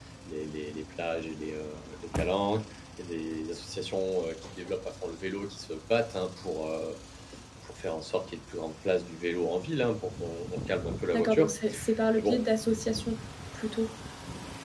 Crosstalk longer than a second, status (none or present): none